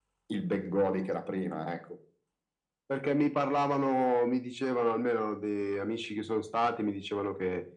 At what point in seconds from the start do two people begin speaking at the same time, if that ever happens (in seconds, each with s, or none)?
none